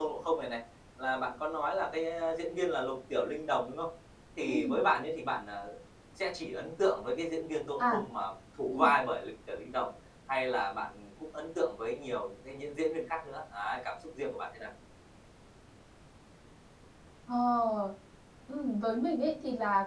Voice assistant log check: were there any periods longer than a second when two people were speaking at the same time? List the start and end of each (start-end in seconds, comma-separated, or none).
none